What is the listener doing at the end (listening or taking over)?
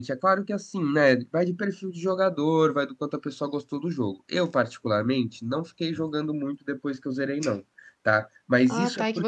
taking over